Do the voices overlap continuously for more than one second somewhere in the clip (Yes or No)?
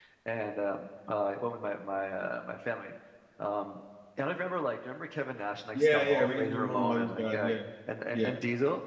Yes